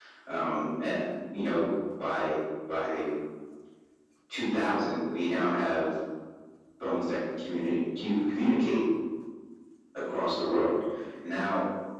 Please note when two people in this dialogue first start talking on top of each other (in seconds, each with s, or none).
none